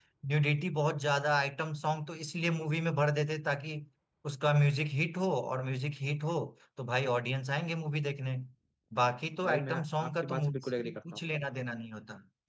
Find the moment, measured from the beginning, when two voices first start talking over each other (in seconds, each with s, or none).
9.4 s